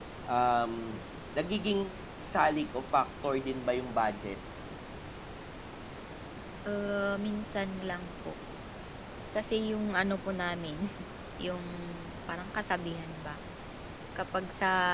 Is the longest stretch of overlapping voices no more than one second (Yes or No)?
Yes